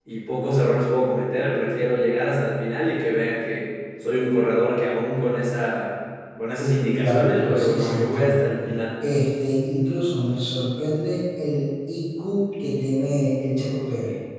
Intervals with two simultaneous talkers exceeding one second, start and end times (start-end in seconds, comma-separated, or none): 7.0-8.4